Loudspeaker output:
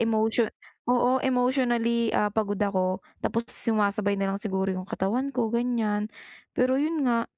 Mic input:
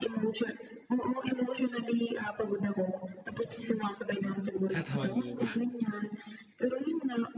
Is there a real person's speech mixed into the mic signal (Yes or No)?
Yes